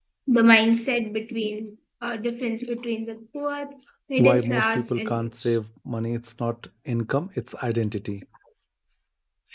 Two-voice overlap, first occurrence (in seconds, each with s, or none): 4.2 s